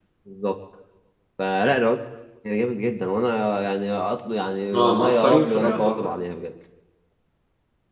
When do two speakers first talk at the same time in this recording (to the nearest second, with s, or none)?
5 s